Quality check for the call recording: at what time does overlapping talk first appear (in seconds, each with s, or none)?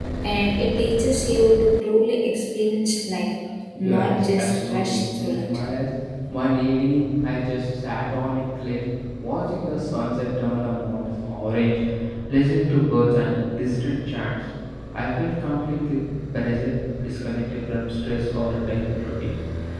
3.8 s